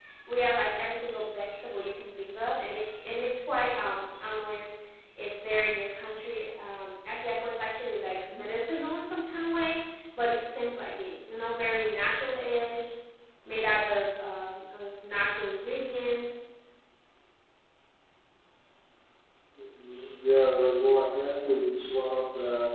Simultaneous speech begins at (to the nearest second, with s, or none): none